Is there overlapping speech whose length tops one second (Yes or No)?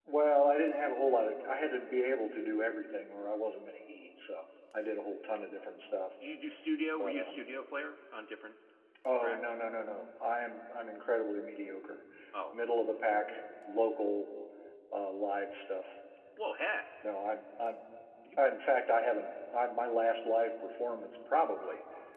No